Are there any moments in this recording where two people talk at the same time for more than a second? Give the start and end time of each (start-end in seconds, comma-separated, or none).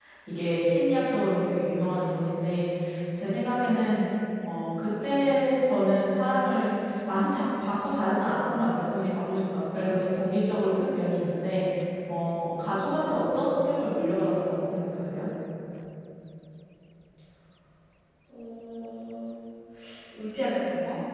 none